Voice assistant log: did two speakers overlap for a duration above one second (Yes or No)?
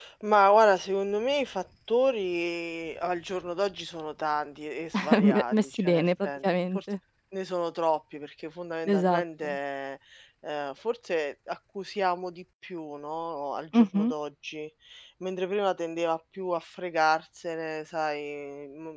Yes